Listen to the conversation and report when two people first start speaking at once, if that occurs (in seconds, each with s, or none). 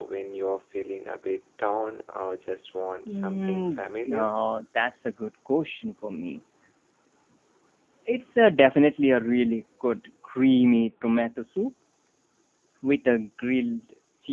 3.1 s